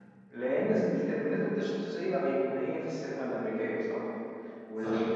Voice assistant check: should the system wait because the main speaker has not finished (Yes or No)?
Yes